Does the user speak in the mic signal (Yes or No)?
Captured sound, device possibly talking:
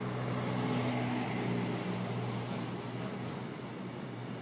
No